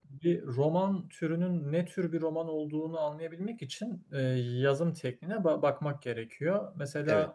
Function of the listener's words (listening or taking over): listening